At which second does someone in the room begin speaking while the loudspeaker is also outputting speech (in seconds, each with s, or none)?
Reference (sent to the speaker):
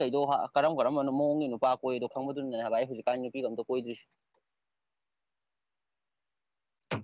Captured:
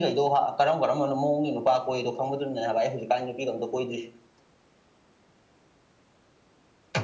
none